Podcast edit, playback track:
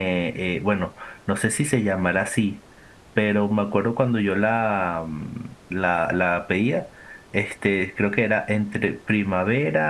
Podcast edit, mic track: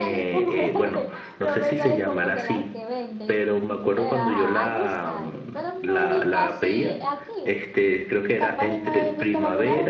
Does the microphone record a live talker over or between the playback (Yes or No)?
Yes